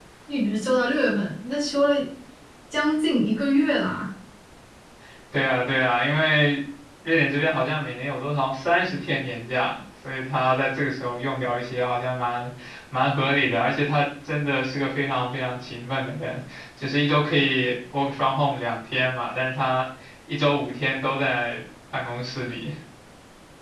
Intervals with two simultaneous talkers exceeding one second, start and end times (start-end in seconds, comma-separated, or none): none